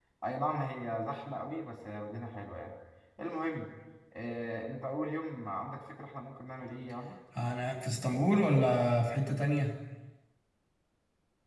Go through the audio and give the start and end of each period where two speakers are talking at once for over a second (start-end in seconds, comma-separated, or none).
none